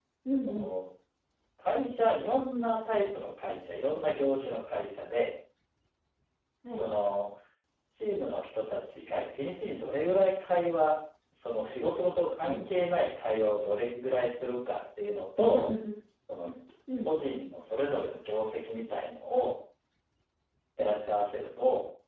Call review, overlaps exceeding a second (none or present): none